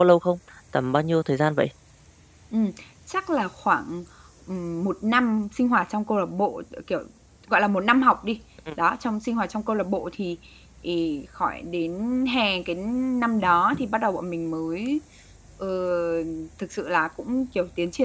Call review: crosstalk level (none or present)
none